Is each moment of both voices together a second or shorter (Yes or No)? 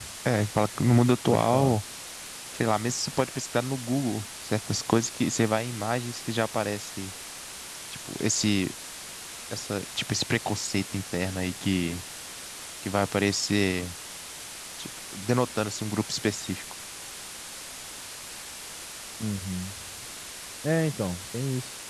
Yes